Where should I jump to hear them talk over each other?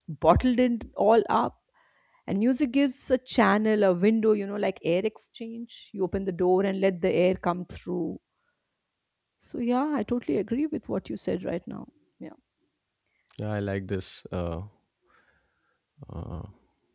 none

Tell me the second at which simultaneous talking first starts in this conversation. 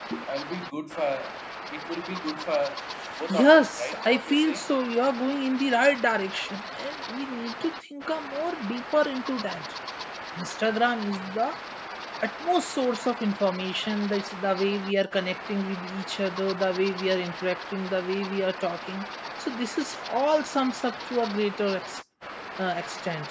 3.3 s

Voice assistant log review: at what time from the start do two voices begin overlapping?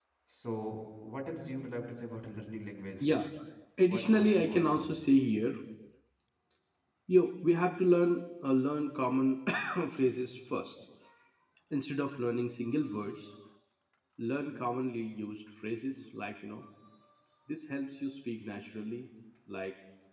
3.8 s

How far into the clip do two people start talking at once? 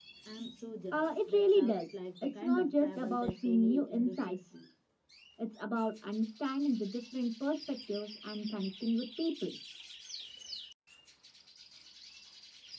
0.9 s

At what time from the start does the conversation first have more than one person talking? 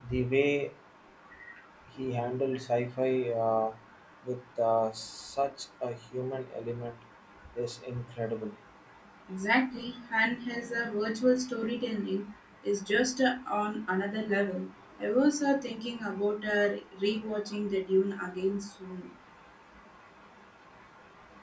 none

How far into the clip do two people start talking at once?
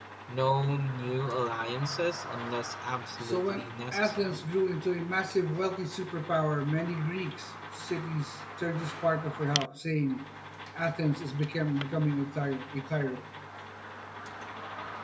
3.2 s

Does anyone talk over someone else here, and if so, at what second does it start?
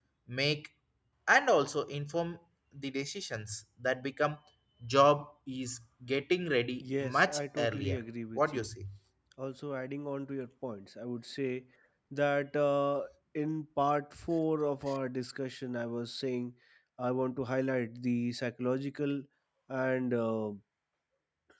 6.8 s

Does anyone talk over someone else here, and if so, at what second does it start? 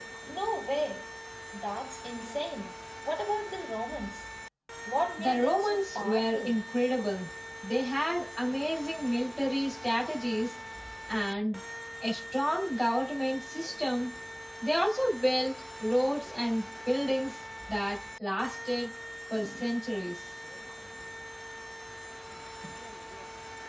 5.2 s

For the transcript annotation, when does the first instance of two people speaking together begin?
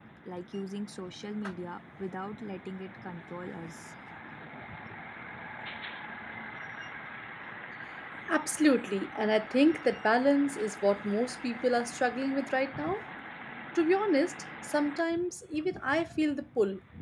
none

